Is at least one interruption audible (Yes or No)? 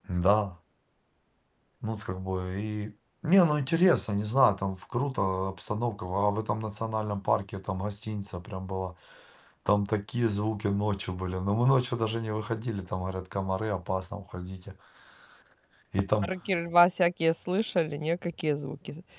No